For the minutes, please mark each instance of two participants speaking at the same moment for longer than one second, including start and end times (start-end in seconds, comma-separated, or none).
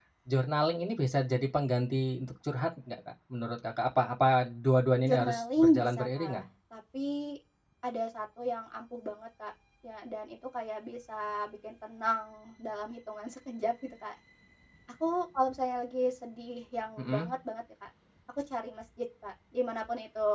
5.0-6.4